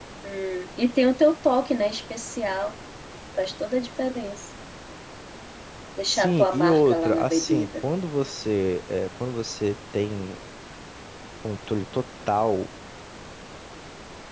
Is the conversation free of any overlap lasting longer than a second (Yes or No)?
No